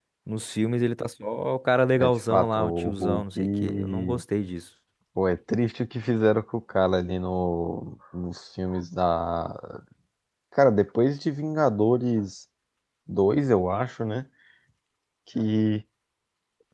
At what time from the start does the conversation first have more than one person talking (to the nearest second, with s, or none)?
2 s